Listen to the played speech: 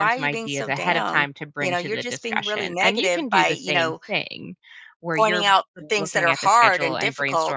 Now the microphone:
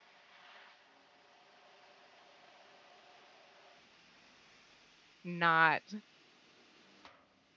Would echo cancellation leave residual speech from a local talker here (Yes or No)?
Yes